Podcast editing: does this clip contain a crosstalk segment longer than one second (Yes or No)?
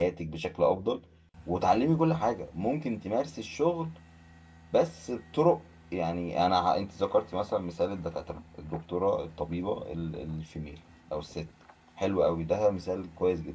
No